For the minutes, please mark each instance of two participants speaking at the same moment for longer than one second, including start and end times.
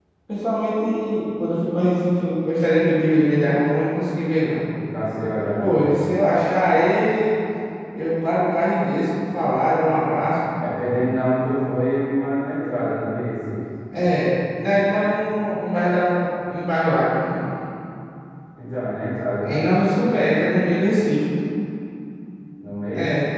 none

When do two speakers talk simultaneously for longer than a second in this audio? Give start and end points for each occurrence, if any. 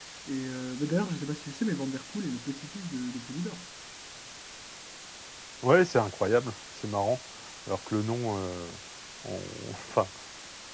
none

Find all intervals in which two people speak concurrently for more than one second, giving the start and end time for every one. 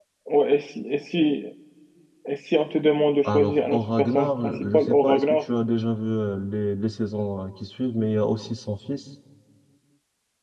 3.2-5.4

